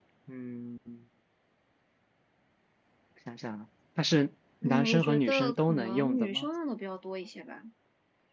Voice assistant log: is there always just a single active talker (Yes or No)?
No